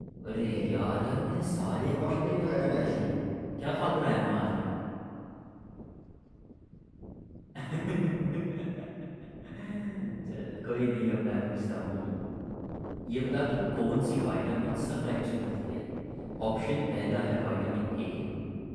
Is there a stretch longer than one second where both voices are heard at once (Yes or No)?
Yes